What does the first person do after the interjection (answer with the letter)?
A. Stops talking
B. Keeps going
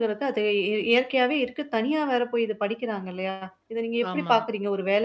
B